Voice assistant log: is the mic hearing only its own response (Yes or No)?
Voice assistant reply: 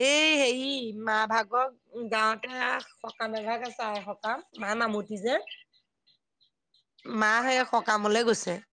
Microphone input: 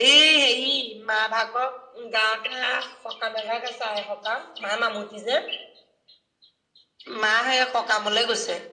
Yes